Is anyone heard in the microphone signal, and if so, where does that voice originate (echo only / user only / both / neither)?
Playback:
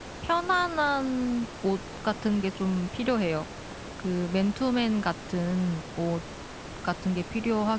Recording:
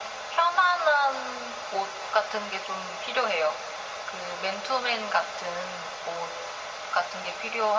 echo only